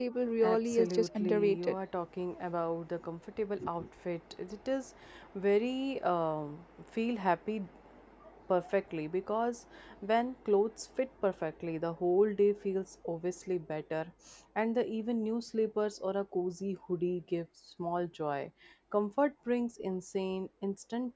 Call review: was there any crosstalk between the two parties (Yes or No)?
Yes